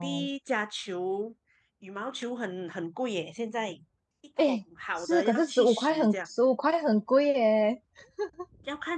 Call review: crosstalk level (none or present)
present